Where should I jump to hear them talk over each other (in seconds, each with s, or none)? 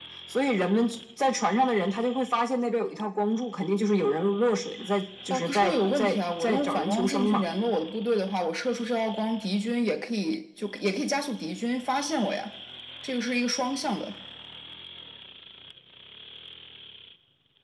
5.3 s